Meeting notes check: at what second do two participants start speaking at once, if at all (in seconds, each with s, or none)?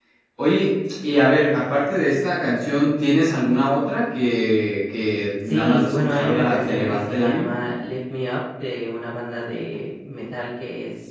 5.5 s